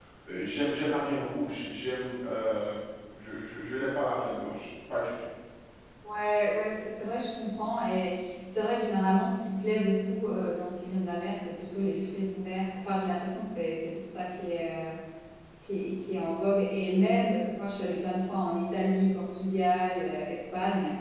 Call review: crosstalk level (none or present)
none